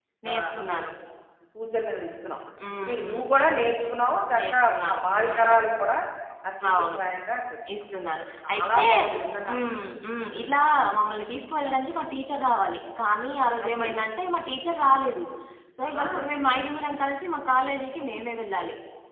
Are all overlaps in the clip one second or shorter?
No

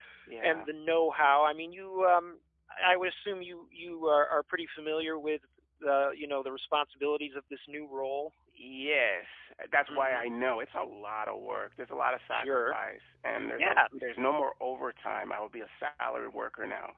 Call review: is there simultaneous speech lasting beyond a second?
No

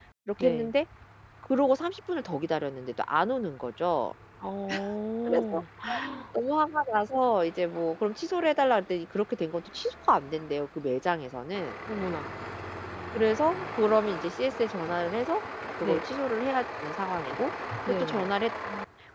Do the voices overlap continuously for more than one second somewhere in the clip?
No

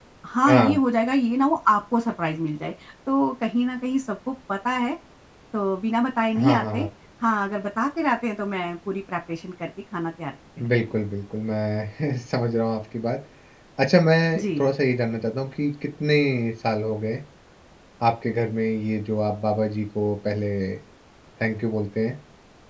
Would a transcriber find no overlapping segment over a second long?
Yes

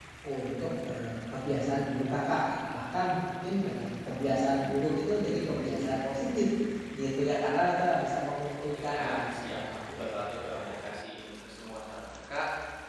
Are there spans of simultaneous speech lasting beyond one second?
Yes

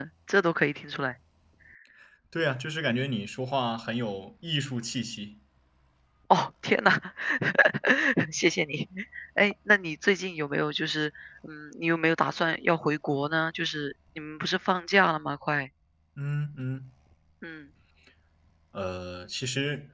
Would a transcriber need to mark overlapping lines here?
No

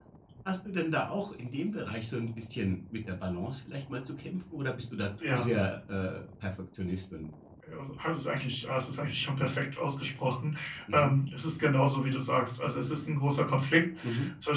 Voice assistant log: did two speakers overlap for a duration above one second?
No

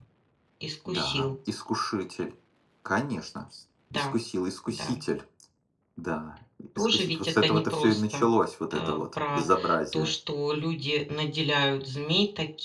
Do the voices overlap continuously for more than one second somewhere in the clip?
Yes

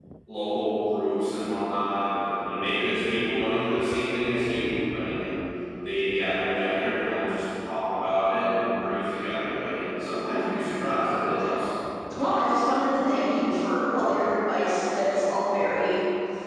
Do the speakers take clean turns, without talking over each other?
Yes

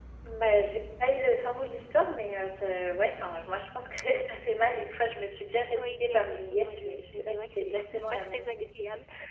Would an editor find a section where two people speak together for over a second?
Yes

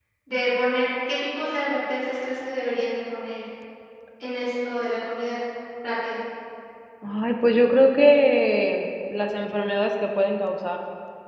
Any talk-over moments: No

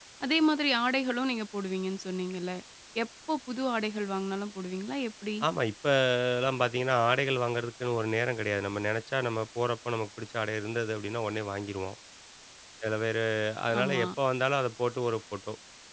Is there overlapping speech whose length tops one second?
No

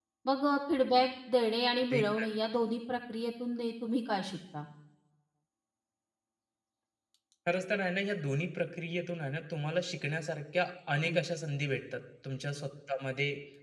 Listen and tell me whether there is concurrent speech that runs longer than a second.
No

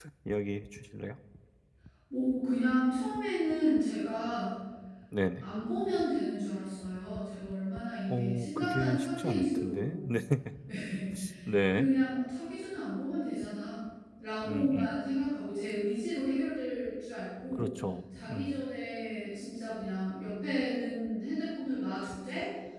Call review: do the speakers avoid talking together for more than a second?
No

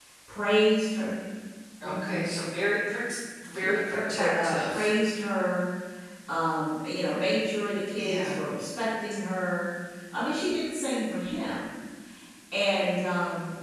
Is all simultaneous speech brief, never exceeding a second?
No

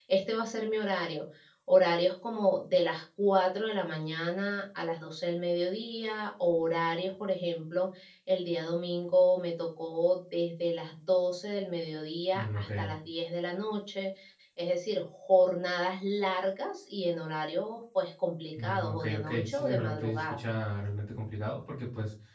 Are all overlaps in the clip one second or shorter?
No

